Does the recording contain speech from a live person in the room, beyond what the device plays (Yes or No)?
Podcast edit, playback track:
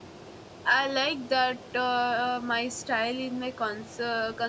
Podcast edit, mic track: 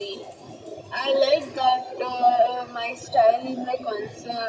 No